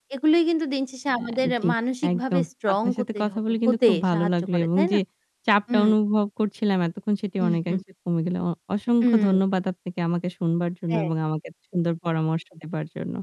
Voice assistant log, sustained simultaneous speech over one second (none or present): present